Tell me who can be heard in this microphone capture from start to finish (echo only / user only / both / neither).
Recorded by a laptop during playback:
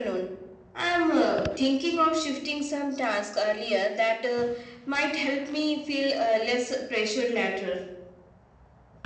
echo only